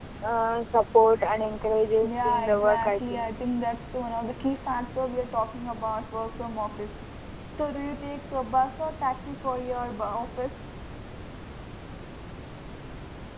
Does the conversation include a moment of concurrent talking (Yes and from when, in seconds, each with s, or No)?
Yes, from 2.0 s